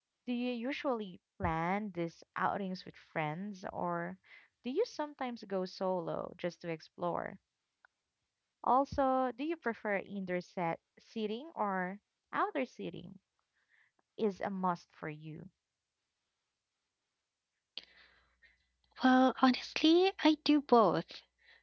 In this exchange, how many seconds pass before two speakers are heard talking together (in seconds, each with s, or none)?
none